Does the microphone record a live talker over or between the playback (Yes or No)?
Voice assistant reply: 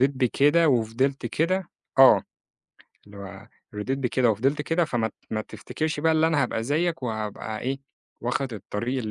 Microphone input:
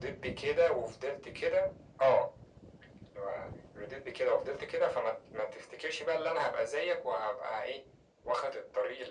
No